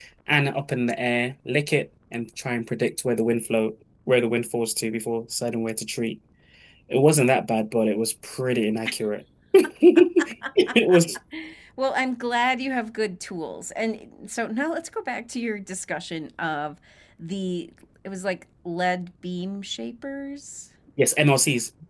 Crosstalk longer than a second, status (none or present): none